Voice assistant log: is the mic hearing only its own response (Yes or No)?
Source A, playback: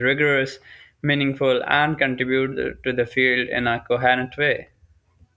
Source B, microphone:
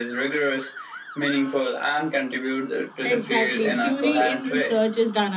No